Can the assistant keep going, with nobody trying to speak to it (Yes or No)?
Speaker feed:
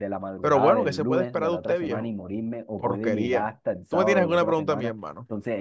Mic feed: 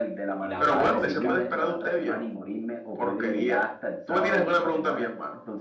No